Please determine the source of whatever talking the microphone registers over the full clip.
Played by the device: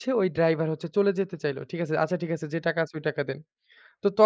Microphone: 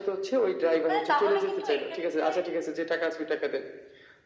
both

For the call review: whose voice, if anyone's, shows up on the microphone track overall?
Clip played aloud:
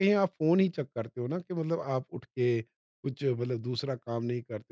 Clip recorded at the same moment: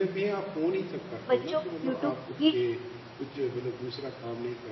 both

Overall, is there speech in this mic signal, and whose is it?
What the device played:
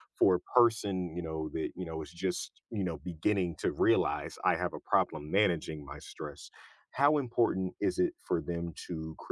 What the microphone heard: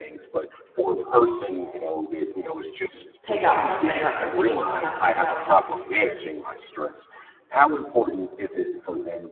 both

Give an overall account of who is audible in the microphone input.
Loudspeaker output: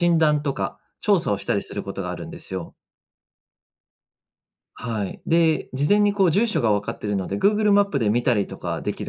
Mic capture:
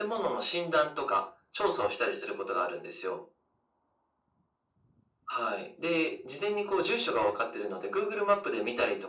echo only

